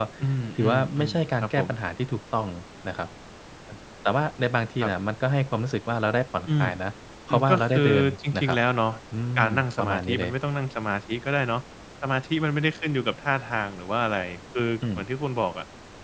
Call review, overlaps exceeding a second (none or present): present